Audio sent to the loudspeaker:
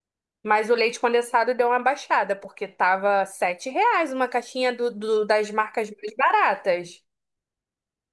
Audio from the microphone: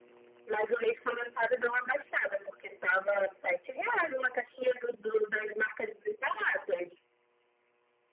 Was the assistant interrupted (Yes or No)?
No